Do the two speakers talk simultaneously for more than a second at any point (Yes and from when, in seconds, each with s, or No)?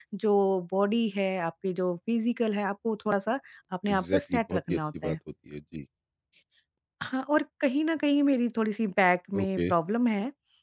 Yes, from 3.9 s